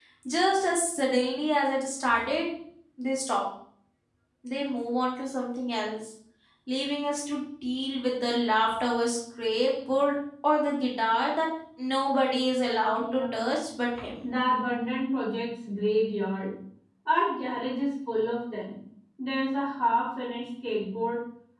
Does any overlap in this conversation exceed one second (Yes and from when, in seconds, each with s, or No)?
No